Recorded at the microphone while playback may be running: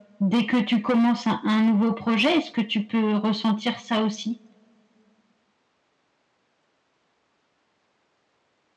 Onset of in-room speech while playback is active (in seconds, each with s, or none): none